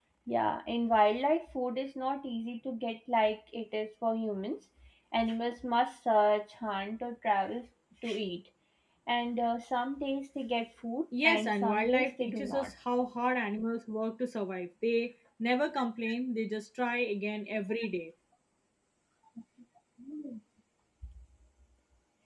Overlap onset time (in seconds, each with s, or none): 11.1 s